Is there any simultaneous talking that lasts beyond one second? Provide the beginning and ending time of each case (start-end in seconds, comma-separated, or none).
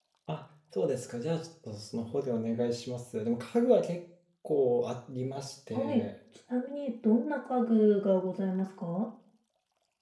none